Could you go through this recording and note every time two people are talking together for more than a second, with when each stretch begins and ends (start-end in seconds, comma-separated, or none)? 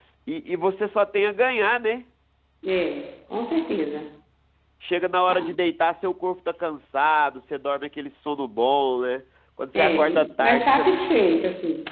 9.8-11.0